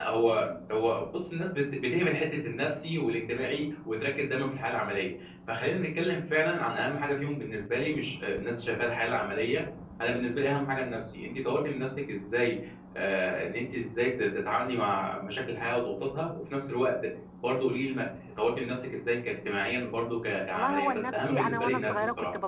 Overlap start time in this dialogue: 21 s

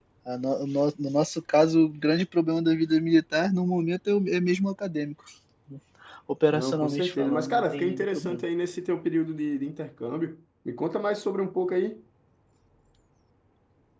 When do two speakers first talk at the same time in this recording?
7 s

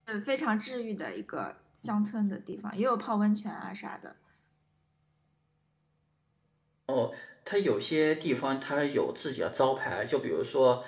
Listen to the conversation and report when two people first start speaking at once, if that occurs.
none

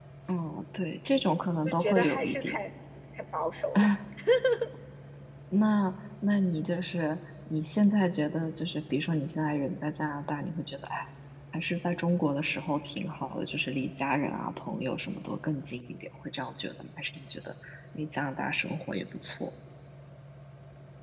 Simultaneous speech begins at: 1 s

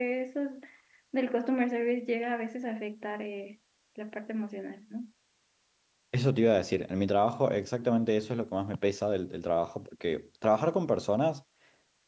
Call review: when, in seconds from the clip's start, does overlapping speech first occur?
none

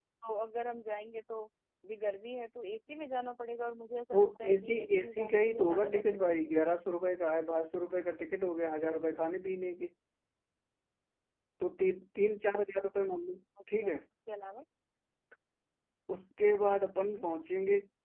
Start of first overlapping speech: 4 s

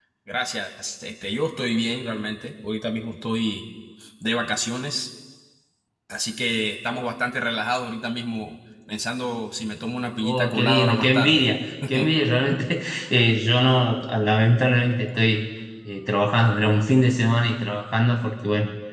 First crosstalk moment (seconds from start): 10 s

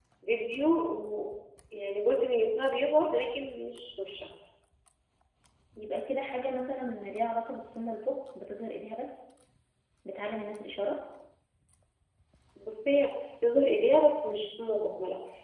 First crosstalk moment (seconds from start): none

